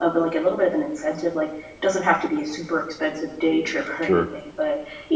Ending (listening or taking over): listening